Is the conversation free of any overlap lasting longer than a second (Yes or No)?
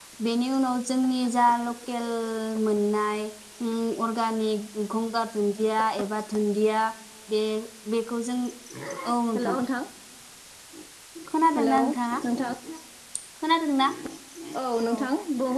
Yes